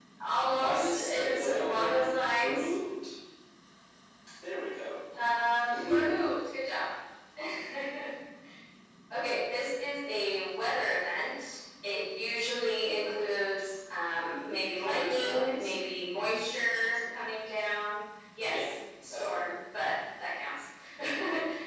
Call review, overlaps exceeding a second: present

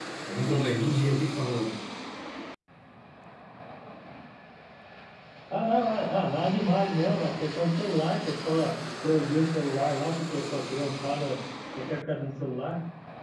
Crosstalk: none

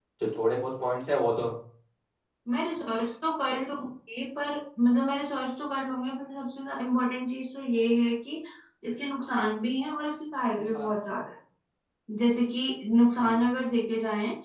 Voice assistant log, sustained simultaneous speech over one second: none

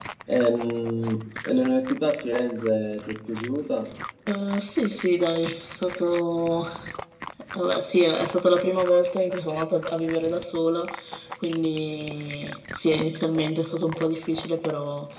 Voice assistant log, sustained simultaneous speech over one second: none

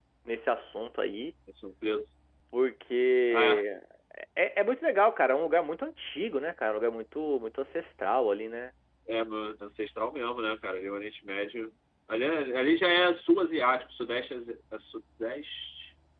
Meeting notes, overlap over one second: none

